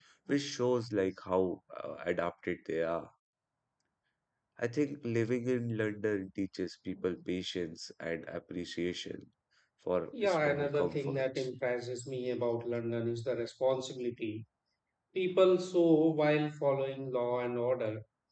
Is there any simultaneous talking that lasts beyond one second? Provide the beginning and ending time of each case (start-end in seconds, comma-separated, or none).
10.2-11.4